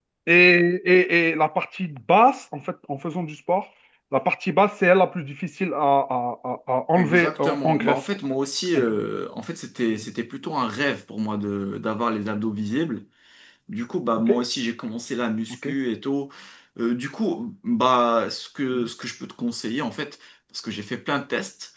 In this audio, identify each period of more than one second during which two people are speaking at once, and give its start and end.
7.0-8.2

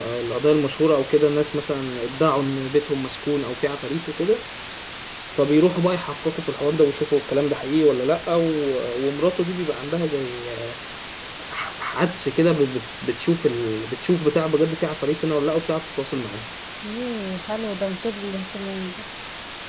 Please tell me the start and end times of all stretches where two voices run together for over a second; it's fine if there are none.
none

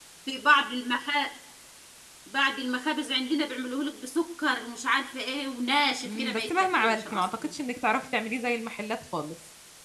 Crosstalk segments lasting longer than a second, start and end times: 6.1-7.3

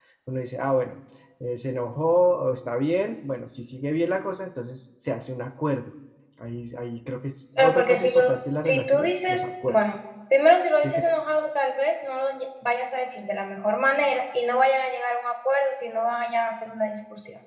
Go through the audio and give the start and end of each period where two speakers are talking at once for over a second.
7.6-9.8

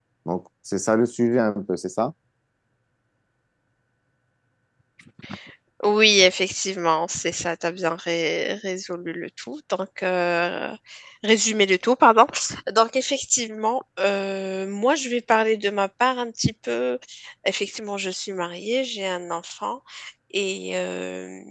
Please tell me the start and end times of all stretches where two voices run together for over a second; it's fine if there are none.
none

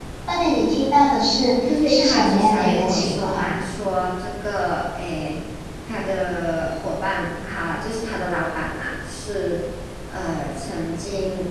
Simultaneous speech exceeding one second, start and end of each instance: 1.7-3.5

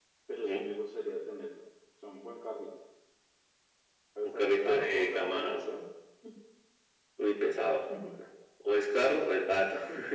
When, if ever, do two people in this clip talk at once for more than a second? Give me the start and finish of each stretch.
4.2-5.6

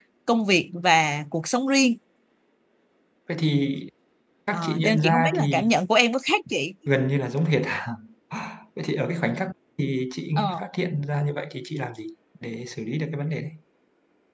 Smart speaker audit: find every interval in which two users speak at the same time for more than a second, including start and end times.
4.5-5.7

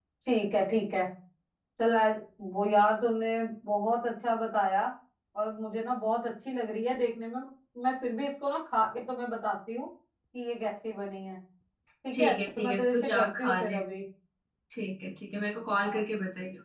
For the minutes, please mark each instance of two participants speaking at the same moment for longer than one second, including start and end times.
12.1-13.8

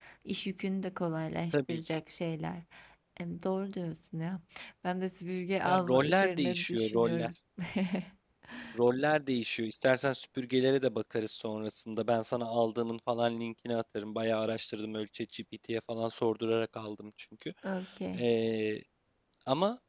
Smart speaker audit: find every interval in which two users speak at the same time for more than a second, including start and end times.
5.7-7.3

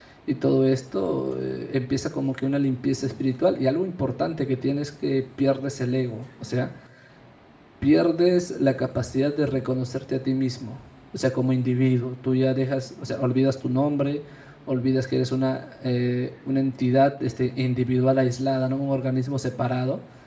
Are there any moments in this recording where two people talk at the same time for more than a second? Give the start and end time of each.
none

